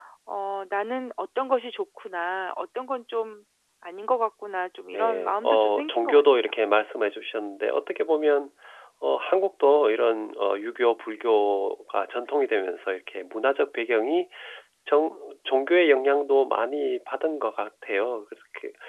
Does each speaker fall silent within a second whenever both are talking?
No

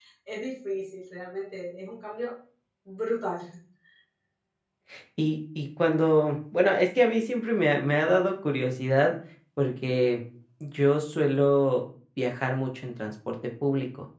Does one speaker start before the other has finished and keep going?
No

